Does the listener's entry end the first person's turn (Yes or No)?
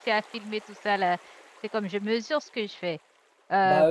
No